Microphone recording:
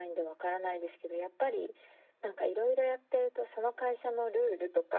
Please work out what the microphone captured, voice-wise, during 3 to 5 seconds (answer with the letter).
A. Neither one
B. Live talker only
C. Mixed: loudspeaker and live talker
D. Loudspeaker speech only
D